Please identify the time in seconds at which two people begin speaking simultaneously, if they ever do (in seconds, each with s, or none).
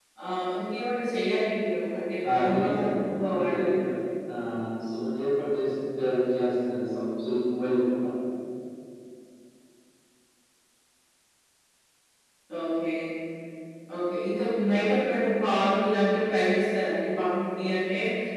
2.2 s